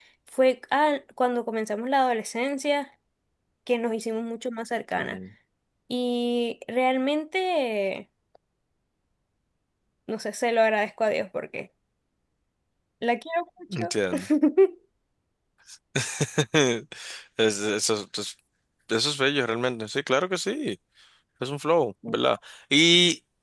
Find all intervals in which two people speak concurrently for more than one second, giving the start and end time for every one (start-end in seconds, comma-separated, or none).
none